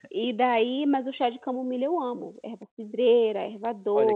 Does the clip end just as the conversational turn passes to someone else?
Yes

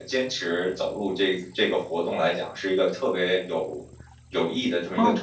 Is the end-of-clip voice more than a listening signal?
Yes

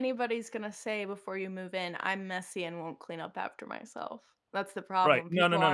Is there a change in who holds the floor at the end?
Yes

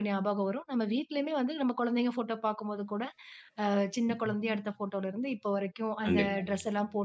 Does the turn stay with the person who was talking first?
Yes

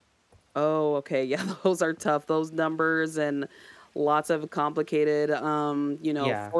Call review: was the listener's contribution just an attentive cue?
Yes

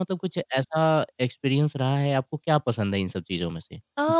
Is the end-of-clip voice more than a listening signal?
Yes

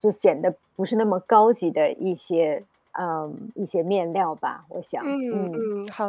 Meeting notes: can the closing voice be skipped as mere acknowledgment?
No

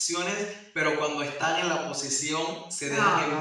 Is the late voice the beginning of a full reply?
No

